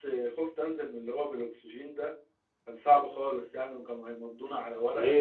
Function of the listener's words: taking over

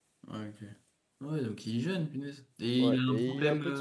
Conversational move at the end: taking over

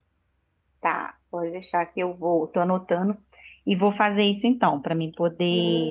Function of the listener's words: taking over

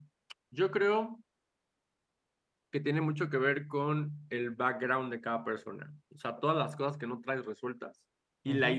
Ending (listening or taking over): listening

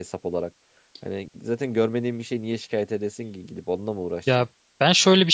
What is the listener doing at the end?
taking over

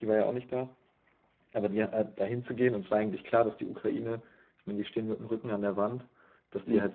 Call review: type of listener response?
listening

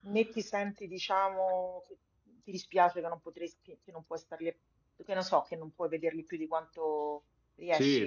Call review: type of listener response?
taking over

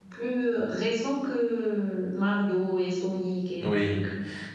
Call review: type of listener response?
taking over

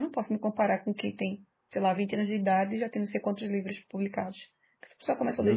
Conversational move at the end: taking over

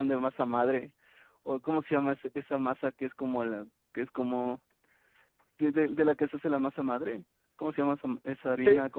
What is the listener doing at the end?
taking over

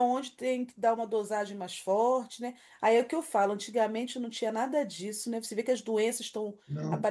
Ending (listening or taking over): listening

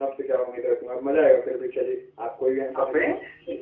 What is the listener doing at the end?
taking over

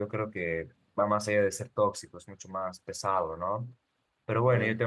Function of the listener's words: listening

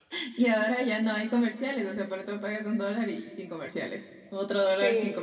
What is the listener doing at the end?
listening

